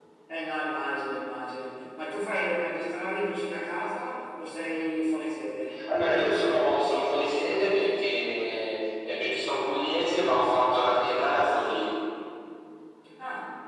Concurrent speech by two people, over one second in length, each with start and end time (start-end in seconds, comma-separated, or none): none